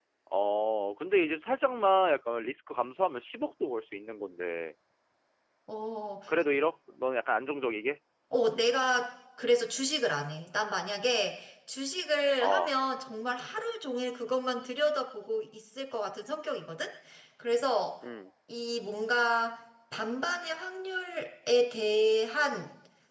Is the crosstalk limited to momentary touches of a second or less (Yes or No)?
Yes